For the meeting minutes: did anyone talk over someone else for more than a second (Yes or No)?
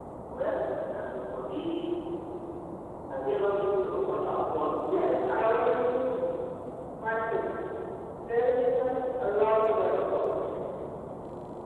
No